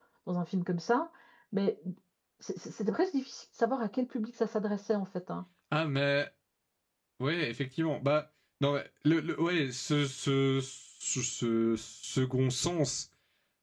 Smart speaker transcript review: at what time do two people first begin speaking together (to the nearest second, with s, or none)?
none